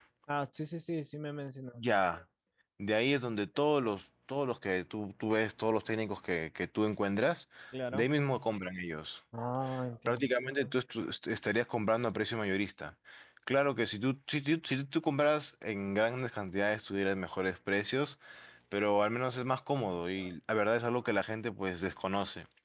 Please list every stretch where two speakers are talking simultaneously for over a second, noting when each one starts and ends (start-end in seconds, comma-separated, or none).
none